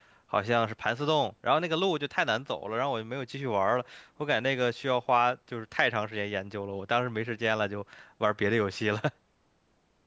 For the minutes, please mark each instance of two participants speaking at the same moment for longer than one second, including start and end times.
none

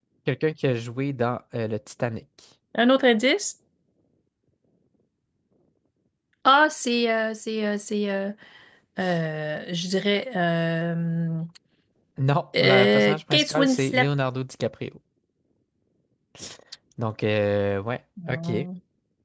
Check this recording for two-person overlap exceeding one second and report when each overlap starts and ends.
12.6-14.1

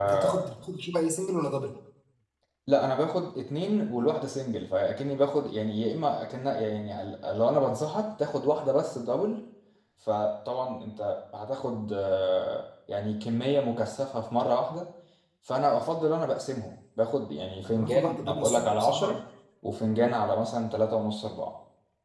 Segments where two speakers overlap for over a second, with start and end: 17.6-19.2

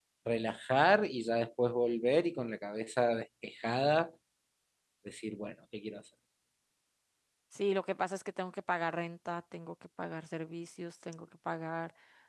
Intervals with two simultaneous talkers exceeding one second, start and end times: none

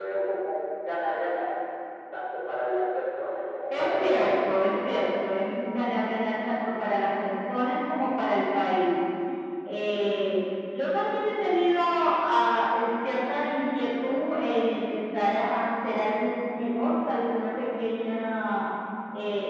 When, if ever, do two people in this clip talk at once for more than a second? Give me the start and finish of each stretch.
3.7-5.1

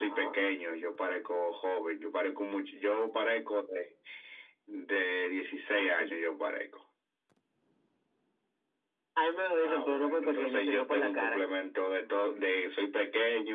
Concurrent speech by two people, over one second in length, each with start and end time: 9.6-11.4

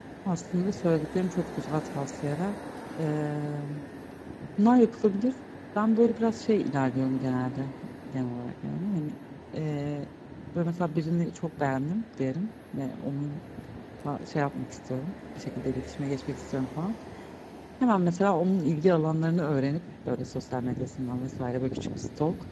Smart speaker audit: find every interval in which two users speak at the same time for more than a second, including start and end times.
none

